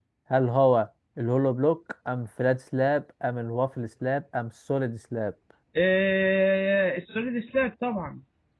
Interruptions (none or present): none